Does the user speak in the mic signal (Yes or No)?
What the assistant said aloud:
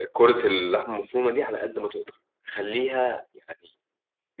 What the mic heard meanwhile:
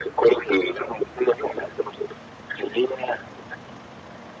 No